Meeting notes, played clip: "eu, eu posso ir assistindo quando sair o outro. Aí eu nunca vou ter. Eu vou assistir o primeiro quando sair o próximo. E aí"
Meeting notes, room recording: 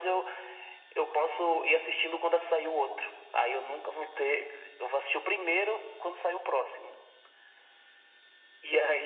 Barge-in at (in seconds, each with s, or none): none